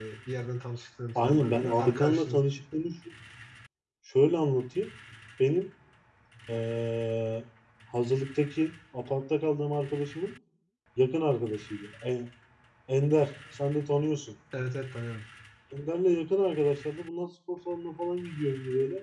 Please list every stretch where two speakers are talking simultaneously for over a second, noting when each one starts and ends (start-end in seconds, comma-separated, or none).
1.1-2.4